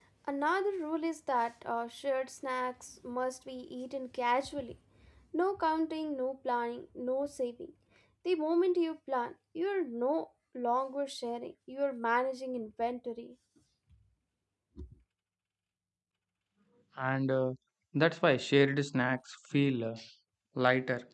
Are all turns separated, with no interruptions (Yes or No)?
Yes